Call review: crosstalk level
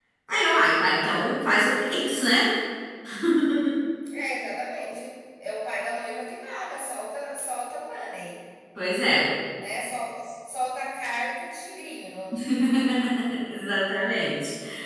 none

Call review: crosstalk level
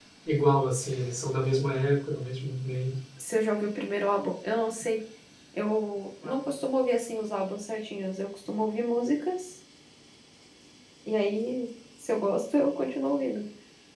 none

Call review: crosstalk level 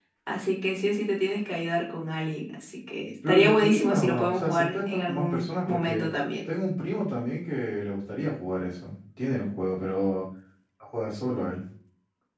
present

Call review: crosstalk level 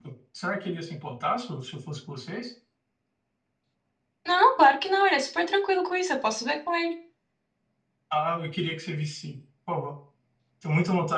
none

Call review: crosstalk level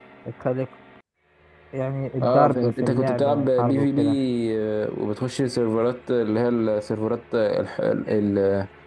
present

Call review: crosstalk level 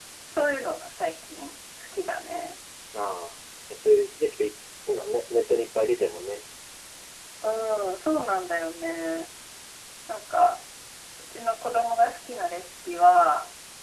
none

